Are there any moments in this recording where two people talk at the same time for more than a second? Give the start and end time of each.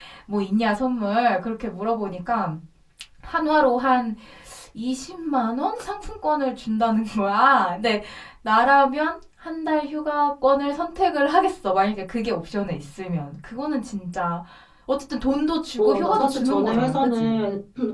15.8-17.4

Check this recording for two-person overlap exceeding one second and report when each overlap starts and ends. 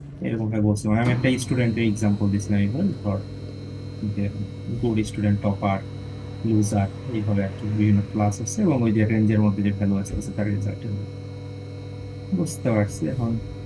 none

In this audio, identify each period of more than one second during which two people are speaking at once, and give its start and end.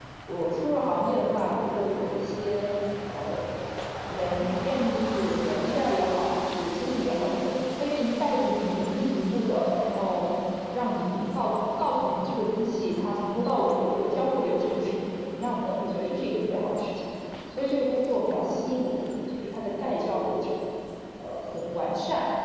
none

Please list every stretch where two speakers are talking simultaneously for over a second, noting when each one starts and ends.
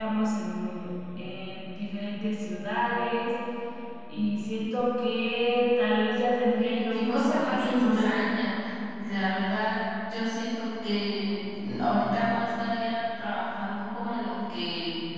6.5-8.0

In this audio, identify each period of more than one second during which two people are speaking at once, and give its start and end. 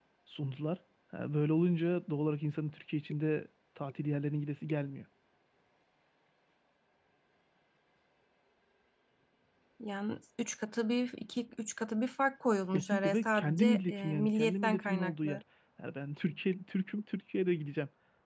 12.7-15.4

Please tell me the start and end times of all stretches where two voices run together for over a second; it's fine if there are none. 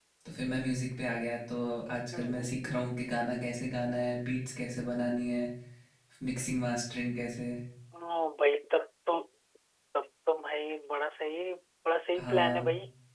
none

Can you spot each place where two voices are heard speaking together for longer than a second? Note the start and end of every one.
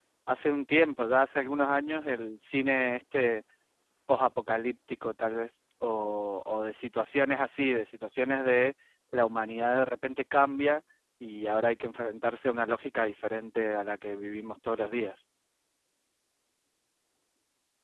none

